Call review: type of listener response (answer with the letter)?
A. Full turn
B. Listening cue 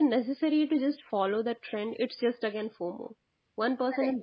B